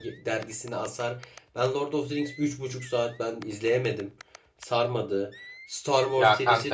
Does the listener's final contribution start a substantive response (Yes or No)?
Yes